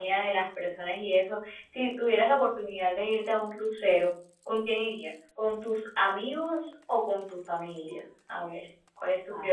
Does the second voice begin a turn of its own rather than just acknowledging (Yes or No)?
Yes